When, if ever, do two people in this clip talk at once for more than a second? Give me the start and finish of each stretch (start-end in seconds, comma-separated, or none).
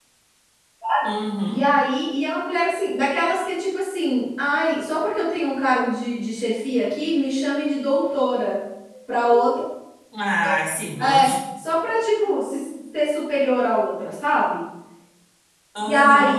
none